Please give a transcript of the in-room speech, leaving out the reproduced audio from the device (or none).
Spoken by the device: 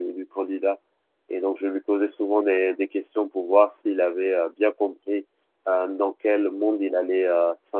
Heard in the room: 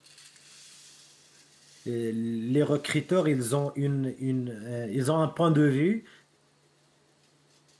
euh, les recruteurs, ils ont une, une, euh, ils ont un point de vue